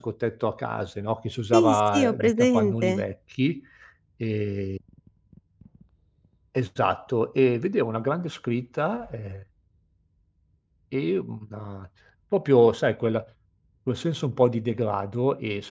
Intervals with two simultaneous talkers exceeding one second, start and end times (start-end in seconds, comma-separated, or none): 1.5-3.0